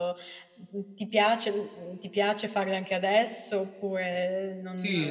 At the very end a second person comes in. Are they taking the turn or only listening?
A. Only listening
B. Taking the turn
B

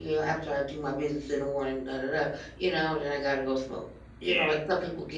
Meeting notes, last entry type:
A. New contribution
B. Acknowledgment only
B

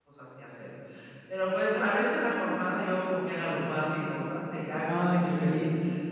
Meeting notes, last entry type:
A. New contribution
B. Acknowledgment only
A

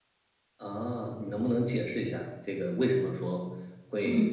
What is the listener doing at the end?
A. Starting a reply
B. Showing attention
B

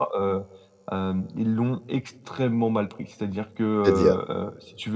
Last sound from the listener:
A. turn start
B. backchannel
B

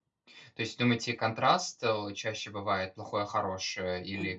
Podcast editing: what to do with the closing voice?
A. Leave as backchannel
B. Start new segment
B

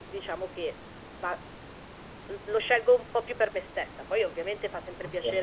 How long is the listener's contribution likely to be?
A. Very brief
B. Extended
A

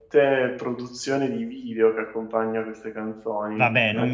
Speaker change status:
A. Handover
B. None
A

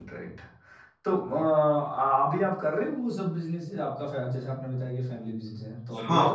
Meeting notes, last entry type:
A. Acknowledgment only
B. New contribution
B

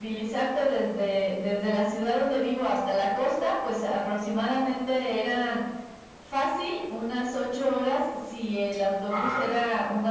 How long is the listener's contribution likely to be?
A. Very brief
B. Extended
A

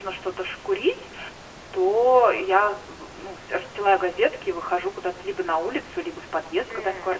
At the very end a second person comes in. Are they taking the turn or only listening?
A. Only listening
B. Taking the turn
A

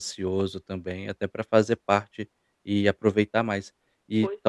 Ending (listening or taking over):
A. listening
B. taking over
A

